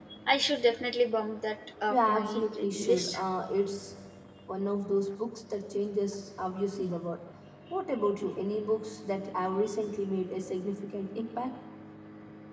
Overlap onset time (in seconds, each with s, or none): 1.9 s